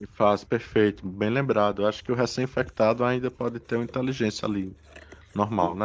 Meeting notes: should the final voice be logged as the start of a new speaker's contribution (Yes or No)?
Yes